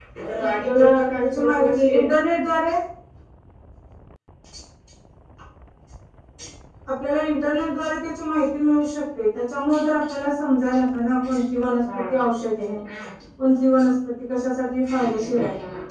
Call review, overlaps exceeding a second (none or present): present